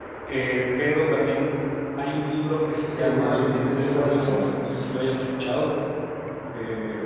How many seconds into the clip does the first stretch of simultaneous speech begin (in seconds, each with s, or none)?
2.9 s